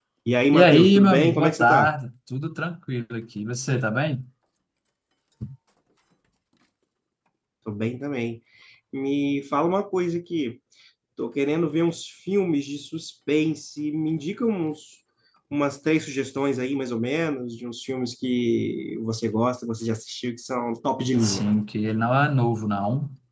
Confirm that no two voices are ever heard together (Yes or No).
No